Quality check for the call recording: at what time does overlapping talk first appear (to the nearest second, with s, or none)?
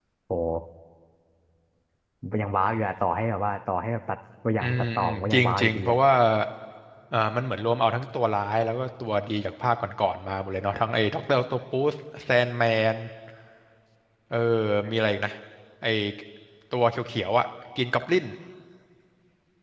5 s